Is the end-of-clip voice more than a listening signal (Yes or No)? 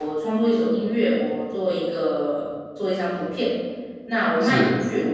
No